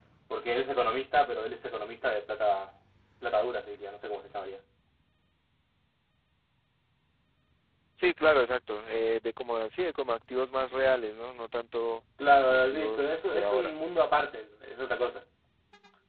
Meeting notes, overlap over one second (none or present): present